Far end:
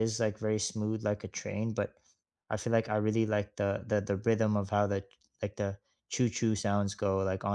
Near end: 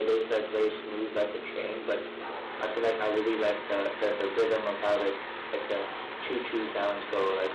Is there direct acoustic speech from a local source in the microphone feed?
No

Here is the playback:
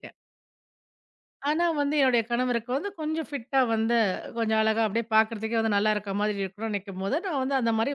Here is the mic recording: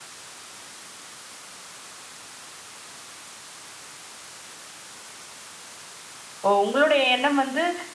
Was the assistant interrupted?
Yes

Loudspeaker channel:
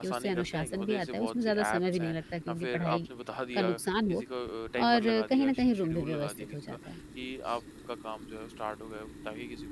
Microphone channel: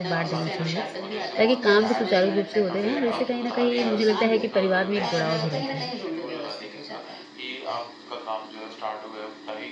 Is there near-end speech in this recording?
Yes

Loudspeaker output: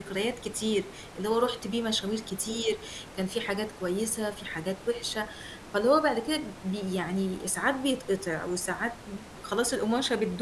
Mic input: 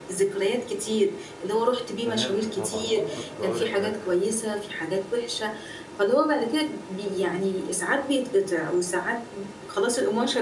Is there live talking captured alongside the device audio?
Yes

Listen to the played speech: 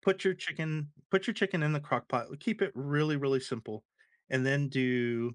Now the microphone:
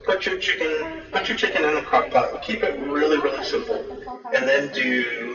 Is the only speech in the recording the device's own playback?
No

